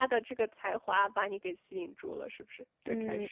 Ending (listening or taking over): taking over